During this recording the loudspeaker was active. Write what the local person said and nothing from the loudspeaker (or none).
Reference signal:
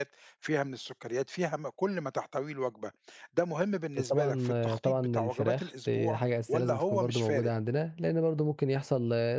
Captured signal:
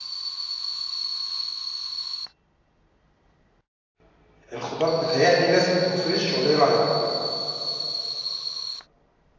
الخضار متهيأ لي لازم يكون فريش والّا إيه رأيك؟